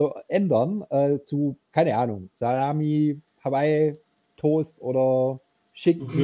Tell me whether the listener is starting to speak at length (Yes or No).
Yes